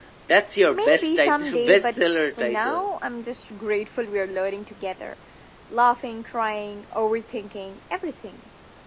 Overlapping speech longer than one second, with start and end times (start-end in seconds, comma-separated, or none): 0.7-2.9